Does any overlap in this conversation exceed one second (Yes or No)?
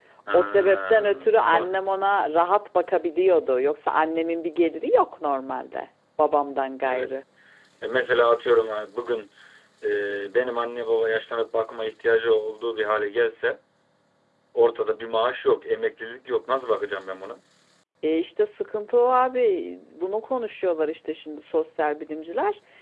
Yes